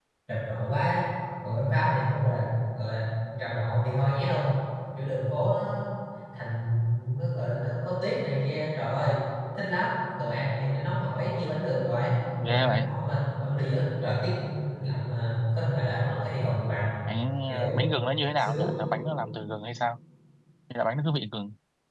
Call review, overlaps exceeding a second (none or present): none